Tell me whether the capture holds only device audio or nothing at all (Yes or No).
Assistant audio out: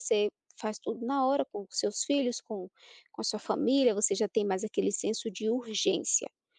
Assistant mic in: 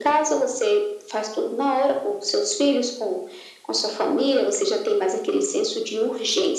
Yes